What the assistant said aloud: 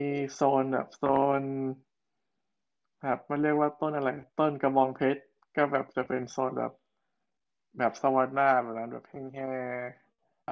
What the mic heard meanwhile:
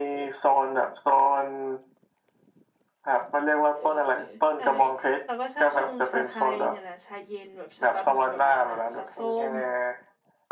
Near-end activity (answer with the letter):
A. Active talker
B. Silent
A